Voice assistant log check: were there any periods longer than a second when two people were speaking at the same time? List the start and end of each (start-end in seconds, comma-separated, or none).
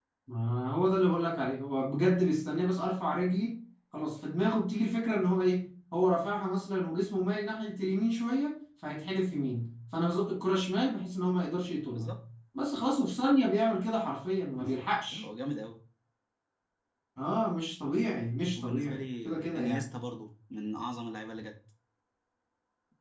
18.5-19.9